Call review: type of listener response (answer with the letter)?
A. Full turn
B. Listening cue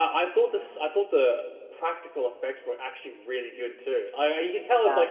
B